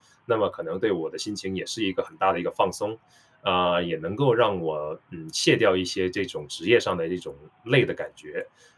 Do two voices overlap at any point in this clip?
No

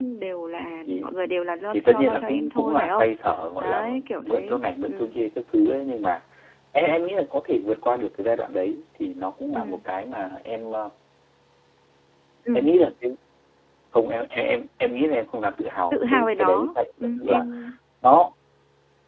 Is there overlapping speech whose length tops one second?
Yes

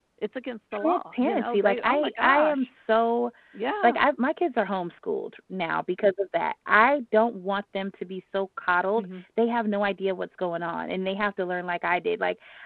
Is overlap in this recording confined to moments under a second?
No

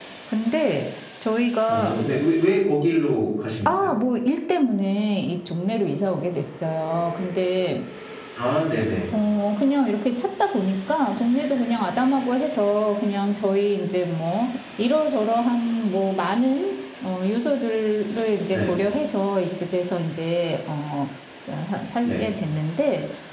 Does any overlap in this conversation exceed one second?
No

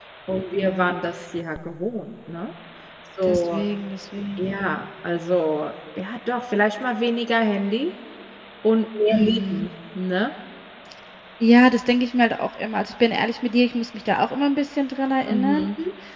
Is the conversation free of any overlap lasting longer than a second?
Yes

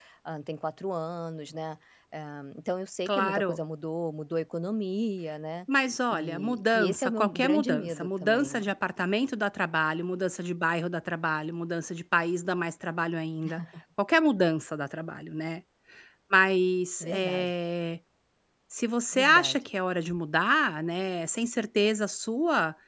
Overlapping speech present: Yes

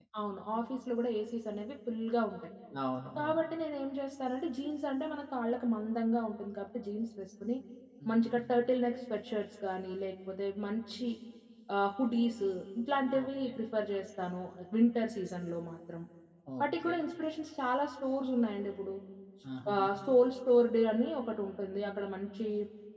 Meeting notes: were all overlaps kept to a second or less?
Yes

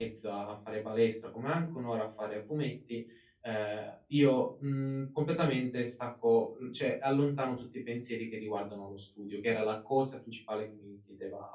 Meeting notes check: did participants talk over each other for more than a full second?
No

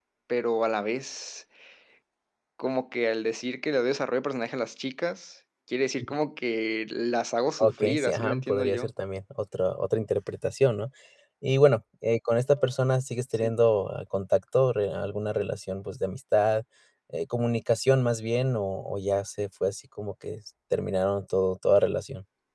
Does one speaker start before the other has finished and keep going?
Yes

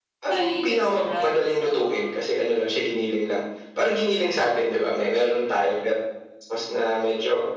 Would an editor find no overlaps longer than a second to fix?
No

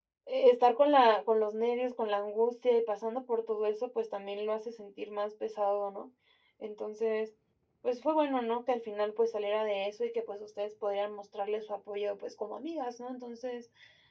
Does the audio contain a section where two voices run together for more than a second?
No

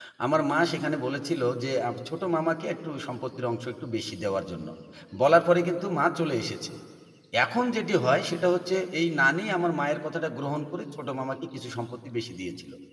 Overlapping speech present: No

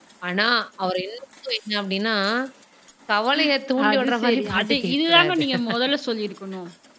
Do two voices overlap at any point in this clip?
Yes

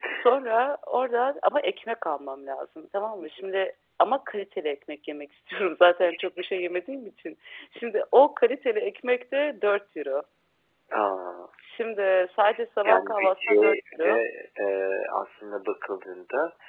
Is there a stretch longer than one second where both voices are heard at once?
Yes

